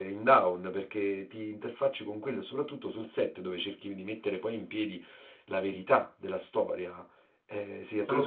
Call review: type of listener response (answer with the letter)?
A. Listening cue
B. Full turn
A